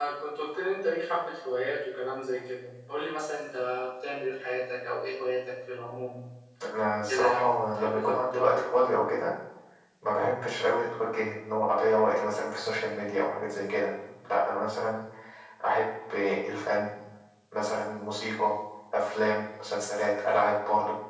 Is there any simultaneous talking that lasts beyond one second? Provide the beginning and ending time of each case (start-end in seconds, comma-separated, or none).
7.0-8.7